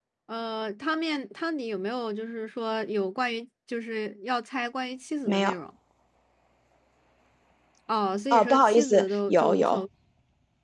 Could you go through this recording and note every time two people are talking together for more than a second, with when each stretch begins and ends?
8.3-9.8

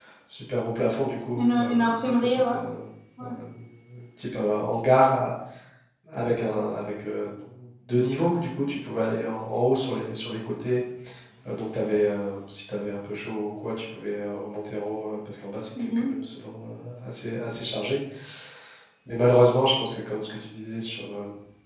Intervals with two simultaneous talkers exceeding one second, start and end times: 1.4-2.6

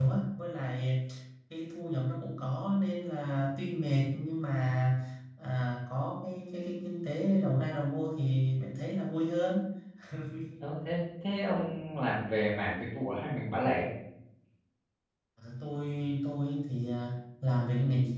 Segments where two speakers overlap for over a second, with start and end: none

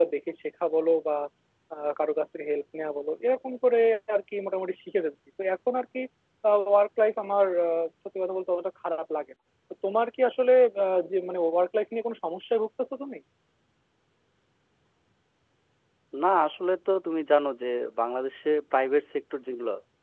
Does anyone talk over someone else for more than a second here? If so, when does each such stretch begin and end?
none

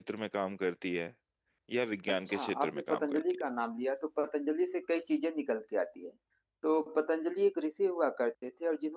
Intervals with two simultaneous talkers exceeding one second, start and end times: 2.1-3.4

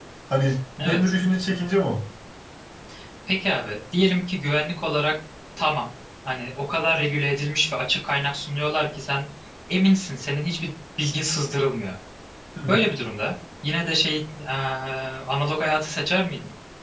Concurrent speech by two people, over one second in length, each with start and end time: none

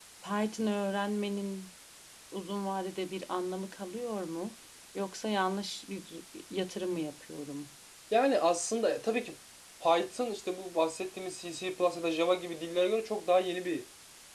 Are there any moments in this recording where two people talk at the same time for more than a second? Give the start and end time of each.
none

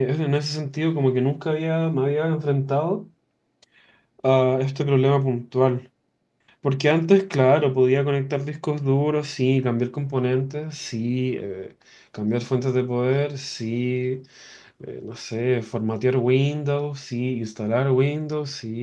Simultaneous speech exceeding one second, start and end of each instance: none

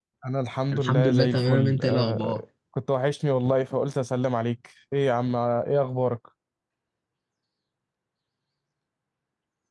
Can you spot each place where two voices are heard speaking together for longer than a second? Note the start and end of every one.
0.7-2.4

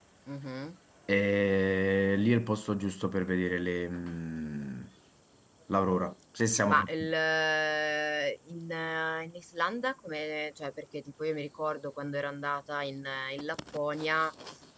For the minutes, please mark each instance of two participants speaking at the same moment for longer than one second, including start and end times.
none

